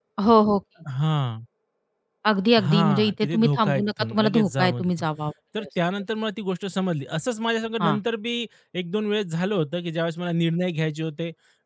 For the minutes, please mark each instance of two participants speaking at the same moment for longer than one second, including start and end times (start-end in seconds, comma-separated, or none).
2.6-5.0